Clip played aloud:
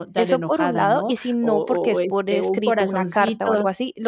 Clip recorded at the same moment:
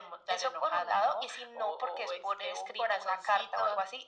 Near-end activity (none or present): none